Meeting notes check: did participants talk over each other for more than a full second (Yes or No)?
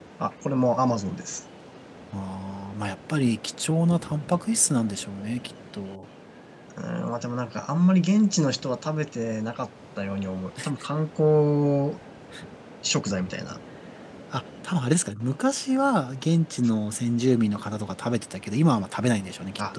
No